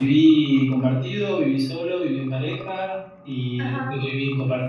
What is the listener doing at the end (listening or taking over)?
listening